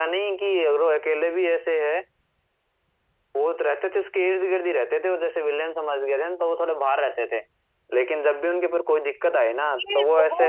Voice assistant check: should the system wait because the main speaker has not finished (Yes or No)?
No